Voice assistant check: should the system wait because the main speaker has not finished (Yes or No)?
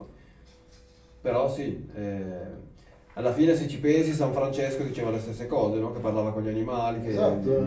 No